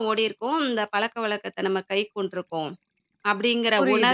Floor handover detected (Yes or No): Yes